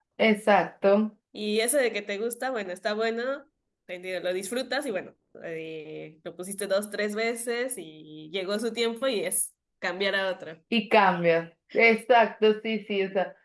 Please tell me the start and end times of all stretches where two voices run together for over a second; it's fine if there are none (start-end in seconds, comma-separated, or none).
none